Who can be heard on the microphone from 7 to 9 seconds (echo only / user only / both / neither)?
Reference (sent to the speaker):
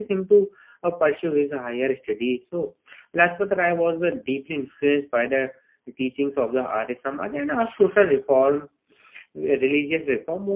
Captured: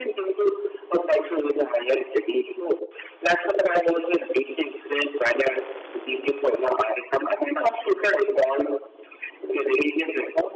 echo only